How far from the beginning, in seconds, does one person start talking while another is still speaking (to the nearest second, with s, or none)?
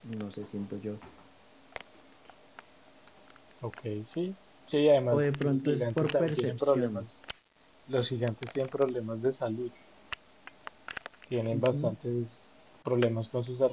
5 s